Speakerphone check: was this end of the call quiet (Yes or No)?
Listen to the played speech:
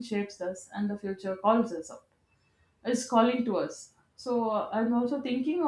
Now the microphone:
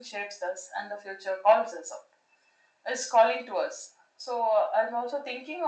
Yes